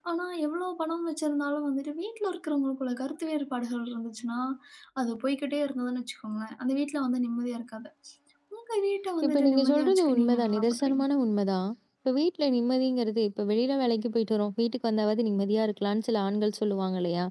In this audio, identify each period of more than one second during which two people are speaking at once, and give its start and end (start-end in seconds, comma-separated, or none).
9.2-11.0